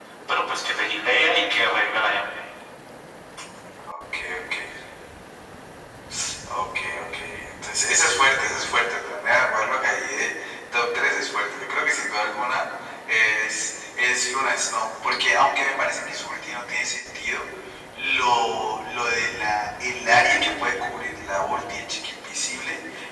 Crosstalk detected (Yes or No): No